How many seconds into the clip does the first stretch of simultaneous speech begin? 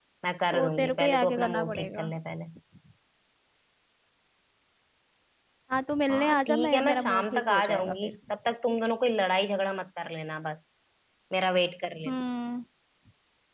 1 s

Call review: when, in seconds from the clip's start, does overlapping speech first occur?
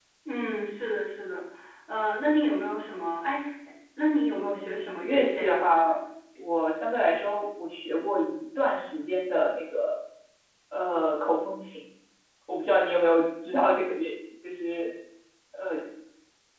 4 s

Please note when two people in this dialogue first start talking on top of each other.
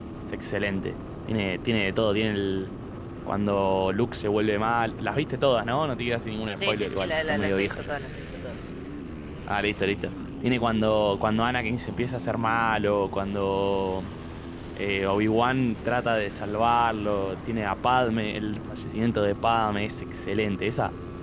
7 s

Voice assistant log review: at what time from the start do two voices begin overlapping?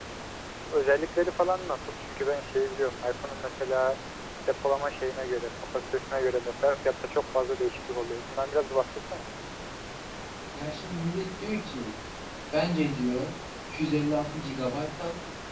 none

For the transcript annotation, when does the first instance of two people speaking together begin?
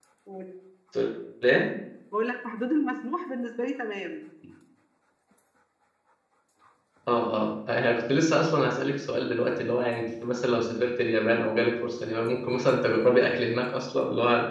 none

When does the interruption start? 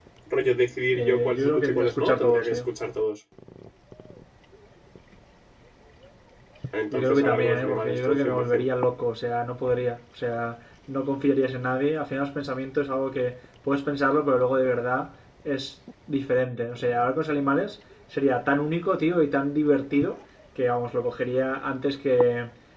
1 s

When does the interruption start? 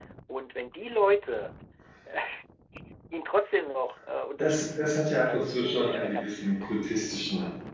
4 s

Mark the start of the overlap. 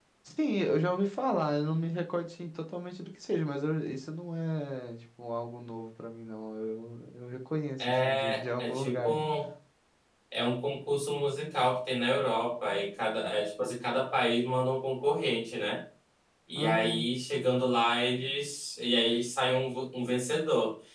8 s

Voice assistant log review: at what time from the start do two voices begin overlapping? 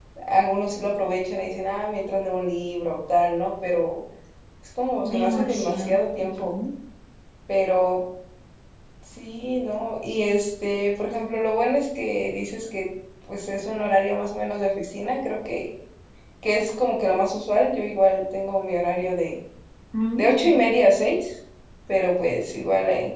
5 s

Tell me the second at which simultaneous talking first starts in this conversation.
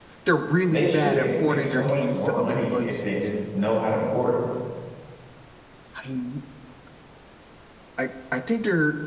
1 s

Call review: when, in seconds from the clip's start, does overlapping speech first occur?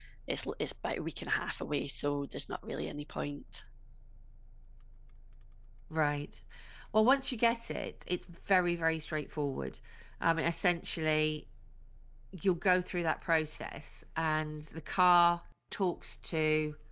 none

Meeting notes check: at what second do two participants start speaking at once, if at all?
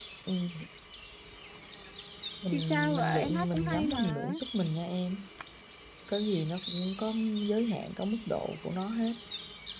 2 s

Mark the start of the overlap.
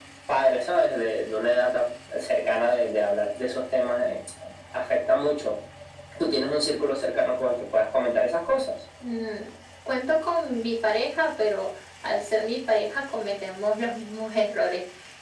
none

